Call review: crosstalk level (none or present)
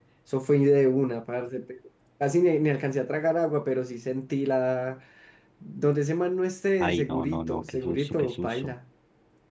present